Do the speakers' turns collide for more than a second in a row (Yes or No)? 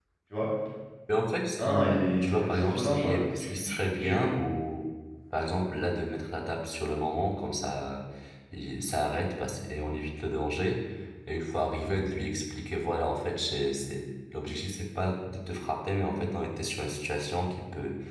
Yes